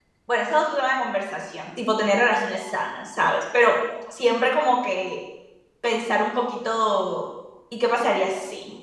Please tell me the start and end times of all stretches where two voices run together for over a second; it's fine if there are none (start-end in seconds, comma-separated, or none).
none